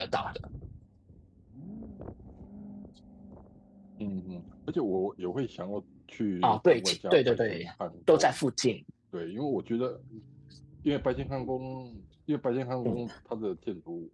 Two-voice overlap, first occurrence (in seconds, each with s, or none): 6.4 s